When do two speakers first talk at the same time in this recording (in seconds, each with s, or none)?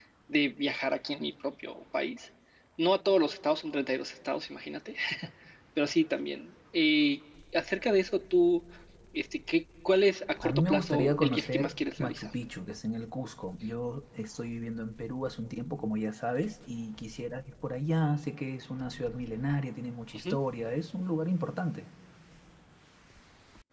10.4 s